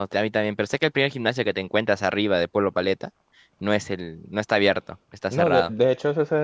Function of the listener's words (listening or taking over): taking over